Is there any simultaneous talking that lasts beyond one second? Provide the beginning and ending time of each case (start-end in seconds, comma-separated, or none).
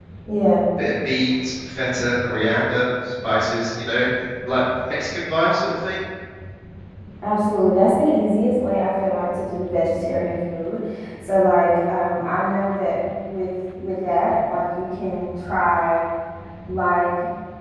none